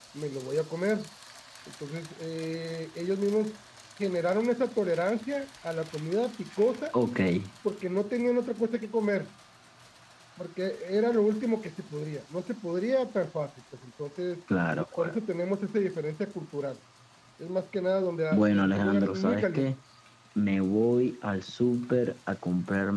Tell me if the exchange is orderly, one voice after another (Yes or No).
No